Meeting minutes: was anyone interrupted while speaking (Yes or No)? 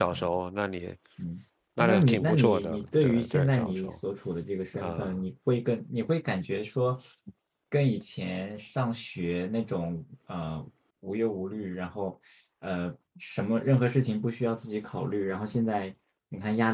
Yes